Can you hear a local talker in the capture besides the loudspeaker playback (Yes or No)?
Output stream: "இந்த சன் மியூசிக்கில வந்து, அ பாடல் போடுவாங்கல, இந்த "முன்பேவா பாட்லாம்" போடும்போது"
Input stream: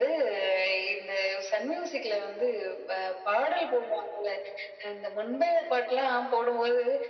No